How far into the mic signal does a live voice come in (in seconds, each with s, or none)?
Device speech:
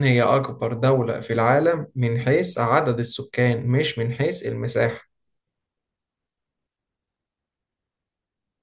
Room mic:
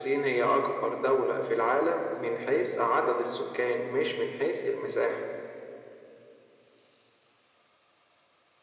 none